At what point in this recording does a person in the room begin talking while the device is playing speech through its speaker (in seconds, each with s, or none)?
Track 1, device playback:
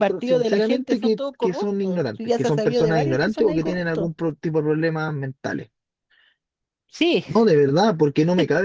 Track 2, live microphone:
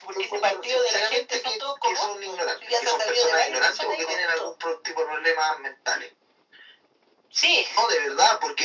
none